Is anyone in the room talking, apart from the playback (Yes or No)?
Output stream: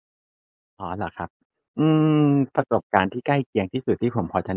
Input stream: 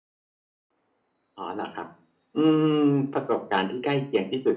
No